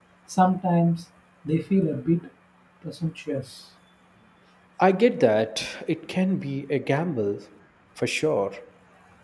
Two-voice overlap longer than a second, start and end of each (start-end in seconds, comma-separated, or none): none